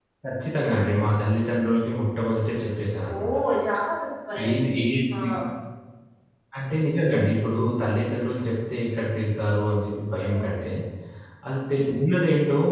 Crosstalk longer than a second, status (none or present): none